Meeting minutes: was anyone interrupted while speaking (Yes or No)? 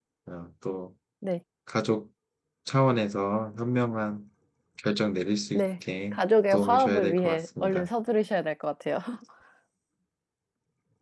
Yes